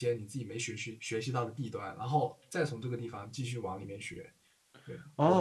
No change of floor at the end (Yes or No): No